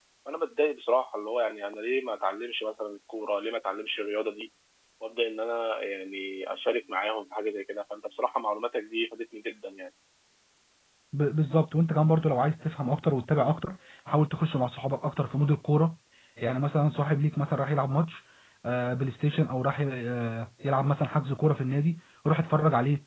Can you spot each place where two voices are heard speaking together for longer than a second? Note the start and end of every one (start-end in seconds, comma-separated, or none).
none